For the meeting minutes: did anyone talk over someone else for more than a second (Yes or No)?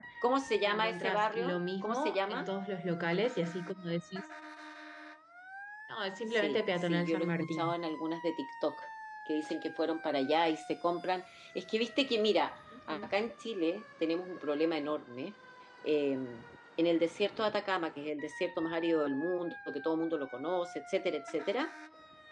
Yes